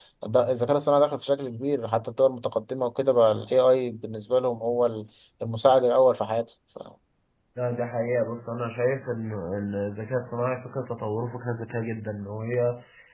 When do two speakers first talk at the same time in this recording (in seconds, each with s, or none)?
none